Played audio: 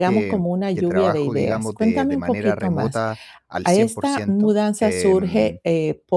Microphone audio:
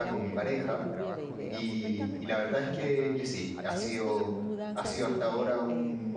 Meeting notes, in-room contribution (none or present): present